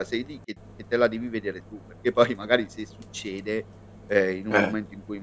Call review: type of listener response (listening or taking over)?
listening